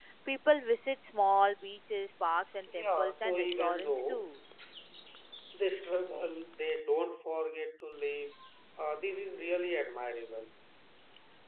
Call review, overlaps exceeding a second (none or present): present